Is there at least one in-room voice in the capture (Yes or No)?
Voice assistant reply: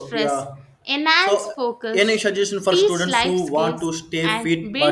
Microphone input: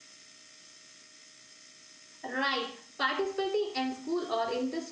Yes